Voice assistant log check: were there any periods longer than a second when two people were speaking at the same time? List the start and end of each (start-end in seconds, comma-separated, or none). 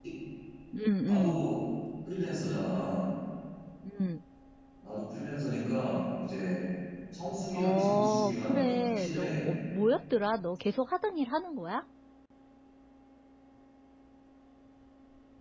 7.5-9.5